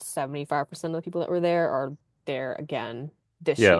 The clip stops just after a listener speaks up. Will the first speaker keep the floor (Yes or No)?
Yes